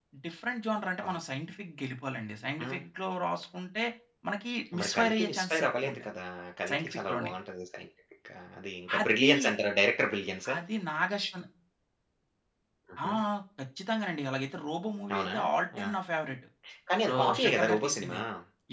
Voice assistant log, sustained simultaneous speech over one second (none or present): present